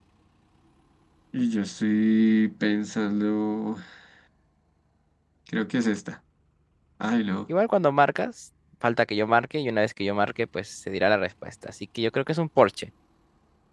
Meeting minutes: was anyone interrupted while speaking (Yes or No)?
No